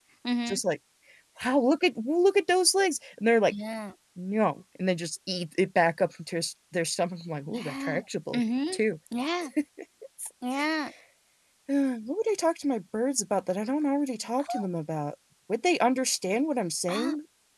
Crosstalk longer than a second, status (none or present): none